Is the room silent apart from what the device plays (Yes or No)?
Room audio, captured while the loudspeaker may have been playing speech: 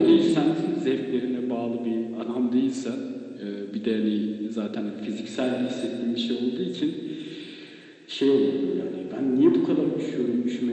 Yes